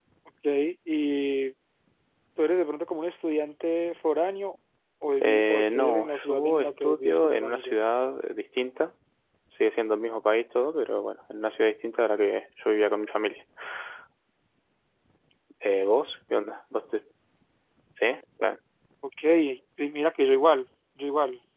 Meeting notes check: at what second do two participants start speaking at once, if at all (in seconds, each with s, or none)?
5.2 s